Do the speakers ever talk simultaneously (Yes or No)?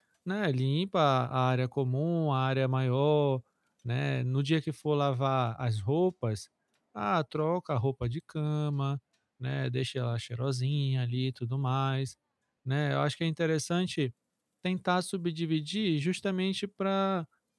No